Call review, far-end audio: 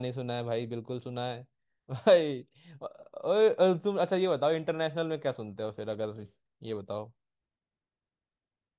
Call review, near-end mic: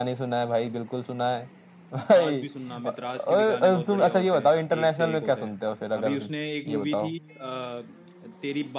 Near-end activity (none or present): present